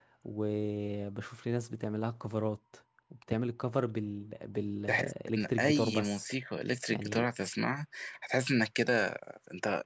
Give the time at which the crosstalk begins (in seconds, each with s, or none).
4.9 s